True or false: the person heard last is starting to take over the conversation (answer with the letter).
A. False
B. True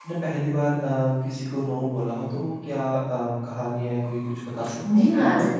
B